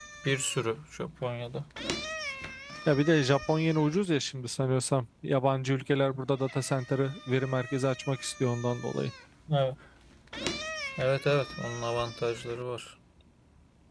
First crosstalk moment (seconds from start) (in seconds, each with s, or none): none